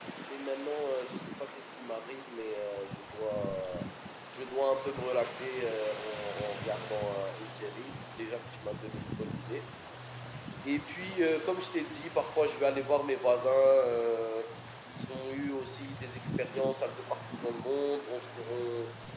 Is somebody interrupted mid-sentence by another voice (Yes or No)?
No